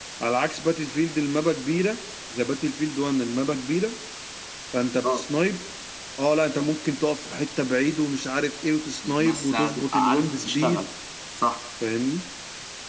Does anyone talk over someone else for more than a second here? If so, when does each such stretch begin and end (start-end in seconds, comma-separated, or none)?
9.1-10.8